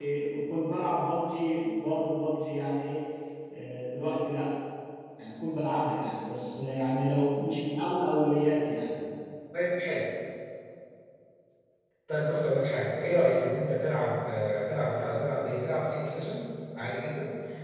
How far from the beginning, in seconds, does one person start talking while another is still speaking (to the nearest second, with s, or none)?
none